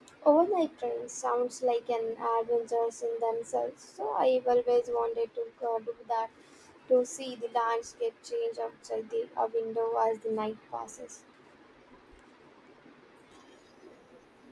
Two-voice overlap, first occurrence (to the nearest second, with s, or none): none